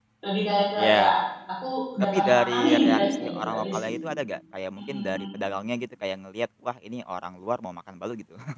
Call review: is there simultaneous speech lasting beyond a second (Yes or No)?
Yes